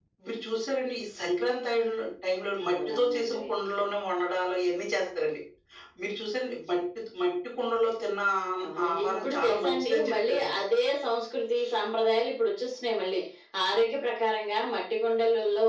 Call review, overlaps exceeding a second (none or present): present